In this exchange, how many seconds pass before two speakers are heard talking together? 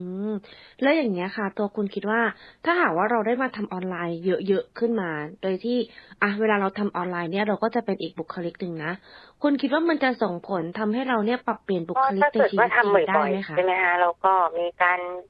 12.0 s

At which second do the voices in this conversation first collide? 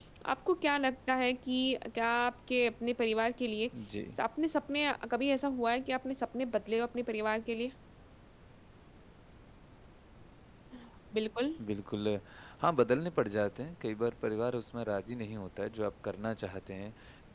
none

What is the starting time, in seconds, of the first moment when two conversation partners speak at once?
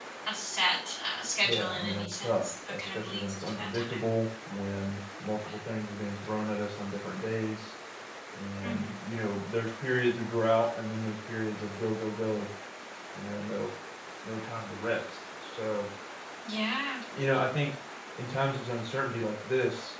1.4 s

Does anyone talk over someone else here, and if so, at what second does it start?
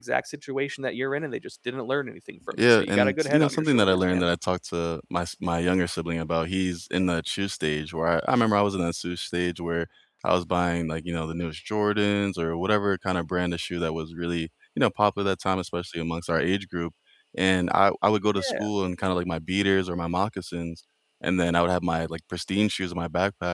2.6 s

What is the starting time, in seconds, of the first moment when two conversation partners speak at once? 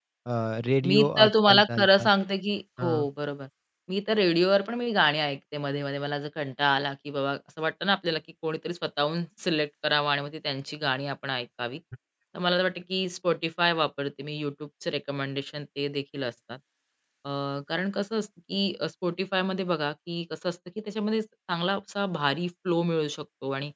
0.9 s

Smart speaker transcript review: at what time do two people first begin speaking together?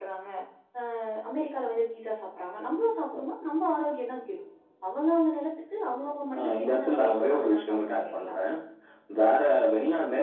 6.3 s

